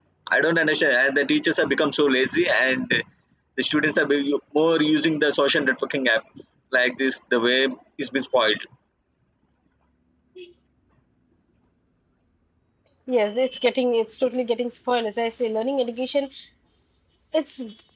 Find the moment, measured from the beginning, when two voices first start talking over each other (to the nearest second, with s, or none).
none